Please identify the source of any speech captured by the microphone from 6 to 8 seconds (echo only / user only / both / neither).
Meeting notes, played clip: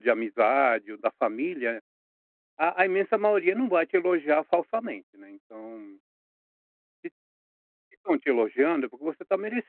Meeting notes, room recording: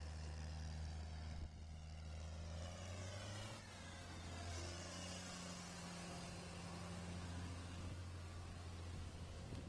neither